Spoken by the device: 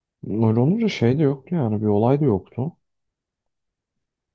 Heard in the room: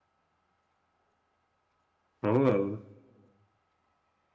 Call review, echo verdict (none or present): none